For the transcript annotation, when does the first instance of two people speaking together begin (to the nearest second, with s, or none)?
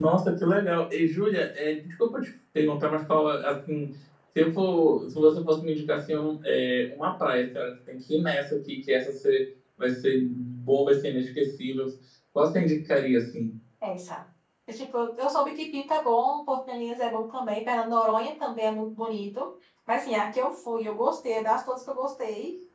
none